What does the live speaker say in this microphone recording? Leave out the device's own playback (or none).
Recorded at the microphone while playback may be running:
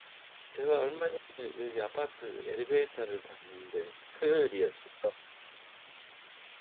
제가 얼마 전에 여기 아파트 엘리베이터를 탔는데 토요일이었어요.